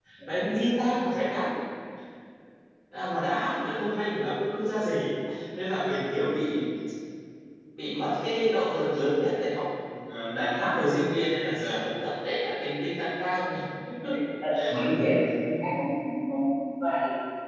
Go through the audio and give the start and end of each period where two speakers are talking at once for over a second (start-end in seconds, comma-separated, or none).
none